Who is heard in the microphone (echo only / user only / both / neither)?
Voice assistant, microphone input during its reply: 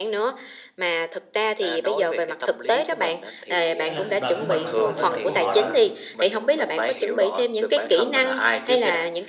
both